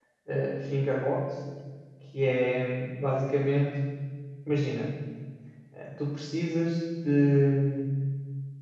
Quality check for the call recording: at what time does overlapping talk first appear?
none

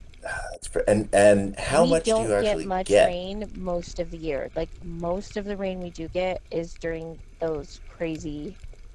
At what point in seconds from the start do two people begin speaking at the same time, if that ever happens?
1.7 s

